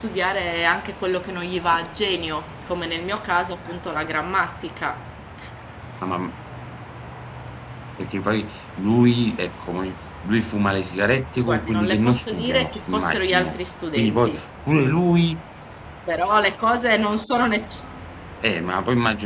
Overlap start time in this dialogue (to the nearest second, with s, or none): 11 s